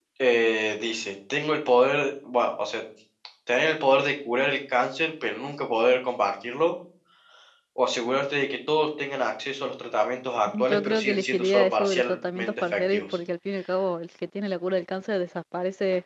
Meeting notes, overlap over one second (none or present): present